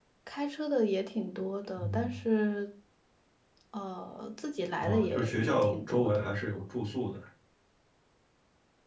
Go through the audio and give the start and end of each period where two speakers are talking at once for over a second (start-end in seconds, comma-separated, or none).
4.8-6.6